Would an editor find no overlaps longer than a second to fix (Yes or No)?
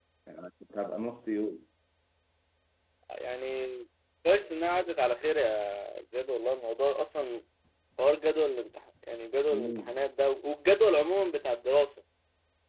Yes